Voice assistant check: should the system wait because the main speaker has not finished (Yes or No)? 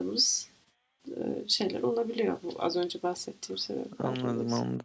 No